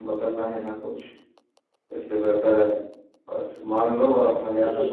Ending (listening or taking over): listening